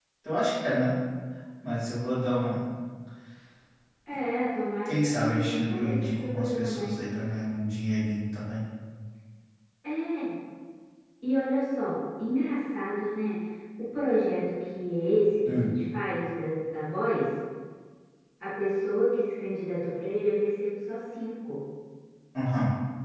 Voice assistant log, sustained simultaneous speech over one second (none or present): present